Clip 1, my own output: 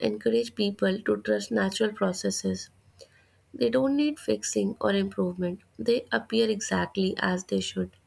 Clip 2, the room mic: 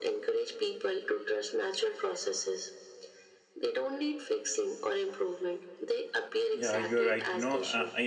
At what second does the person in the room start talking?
6.5 s

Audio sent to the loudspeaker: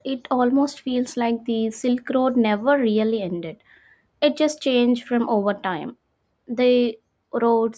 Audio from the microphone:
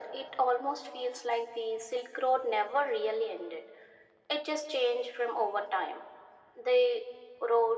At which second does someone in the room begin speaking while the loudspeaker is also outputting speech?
none

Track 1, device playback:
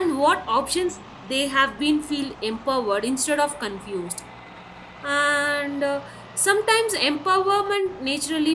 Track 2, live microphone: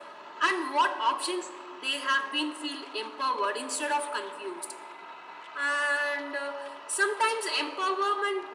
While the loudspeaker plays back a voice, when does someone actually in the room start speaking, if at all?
none

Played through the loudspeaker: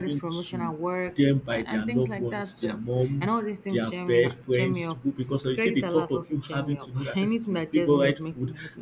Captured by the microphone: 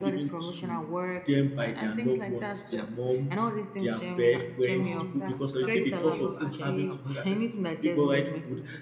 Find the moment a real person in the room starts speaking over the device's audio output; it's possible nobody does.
4.8 s

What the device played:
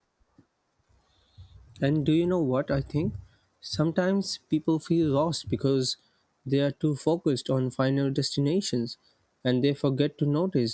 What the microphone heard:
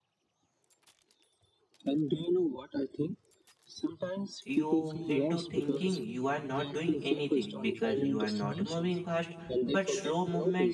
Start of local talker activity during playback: 4.4 s

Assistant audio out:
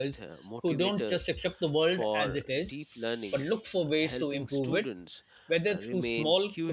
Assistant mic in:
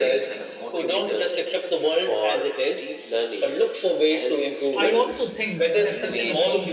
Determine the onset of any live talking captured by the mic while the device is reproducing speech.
4.7 s

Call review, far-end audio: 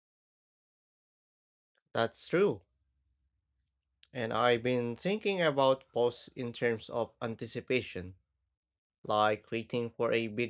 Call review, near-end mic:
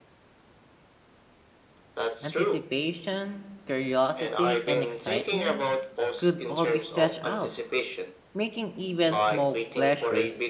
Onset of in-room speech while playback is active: 2.2 s

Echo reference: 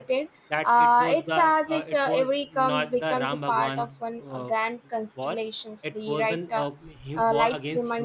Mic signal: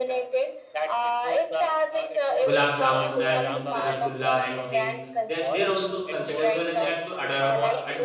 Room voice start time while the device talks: 2.5 s

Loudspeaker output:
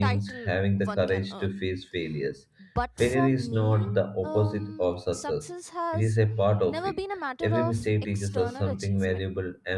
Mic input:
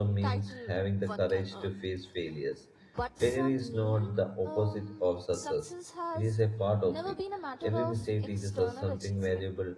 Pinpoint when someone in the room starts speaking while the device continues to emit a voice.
none

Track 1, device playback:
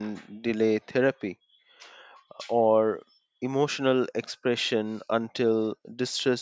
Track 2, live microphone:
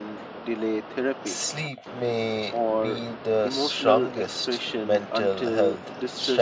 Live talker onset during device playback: 1.2 s

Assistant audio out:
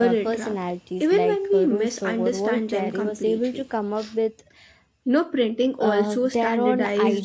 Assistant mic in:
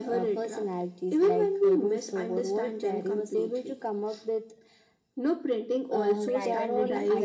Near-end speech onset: 6.3 s

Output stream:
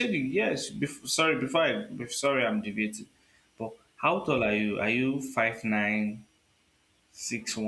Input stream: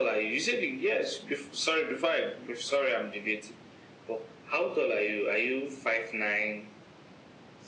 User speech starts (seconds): none

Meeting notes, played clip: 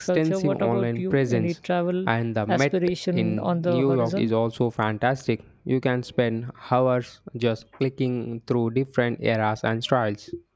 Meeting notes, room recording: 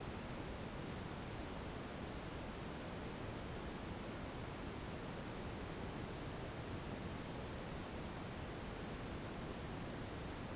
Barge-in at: none

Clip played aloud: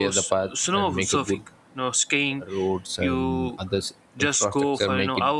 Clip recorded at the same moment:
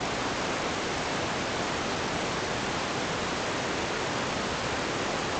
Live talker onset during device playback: none

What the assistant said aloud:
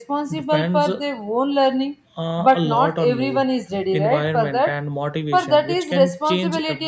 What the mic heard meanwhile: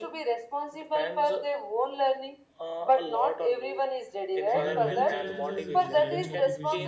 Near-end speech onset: 4.5 s

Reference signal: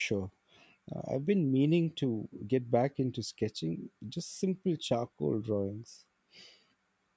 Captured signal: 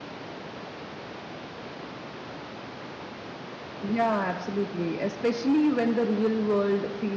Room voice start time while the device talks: 3.8 s

